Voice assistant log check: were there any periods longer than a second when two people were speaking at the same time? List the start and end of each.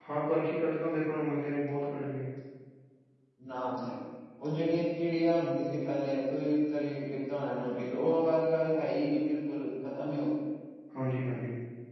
none

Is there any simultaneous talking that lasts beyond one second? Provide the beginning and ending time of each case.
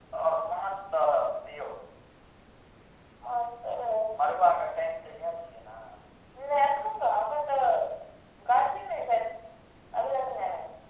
none

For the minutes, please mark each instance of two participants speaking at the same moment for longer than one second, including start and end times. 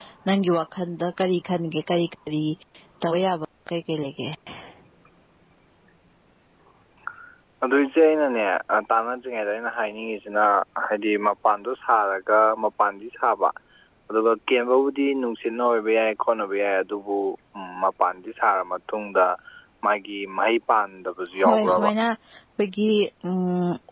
none

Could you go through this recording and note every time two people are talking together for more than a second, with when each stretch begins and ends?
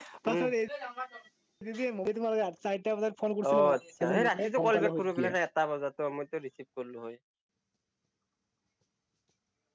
4.0-5.3

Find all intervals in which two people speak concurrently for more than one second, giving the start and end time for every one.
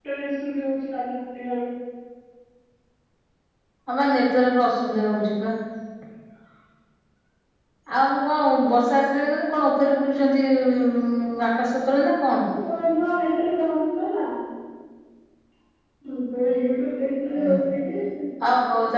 none

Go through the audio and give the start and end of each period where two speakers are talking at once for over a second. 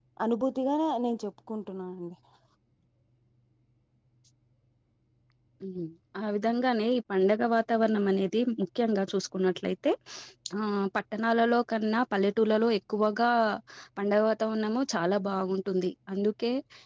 none

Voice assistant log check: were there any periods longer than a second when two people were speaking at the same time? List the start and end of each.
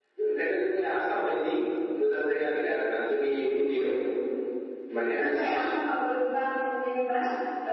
none

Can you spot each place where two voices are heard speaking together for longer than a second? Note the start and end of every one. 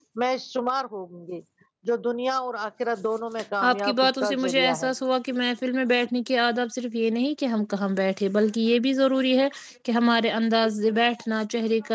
3.7-4.9

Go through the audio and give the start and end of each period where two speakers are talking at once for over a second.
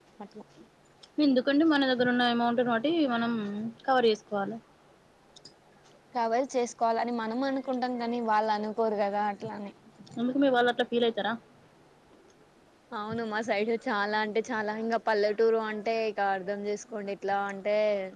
none

